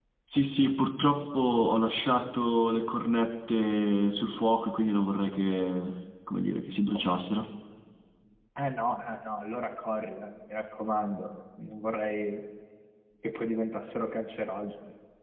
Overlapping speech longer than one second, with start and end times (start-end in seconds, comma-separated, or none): none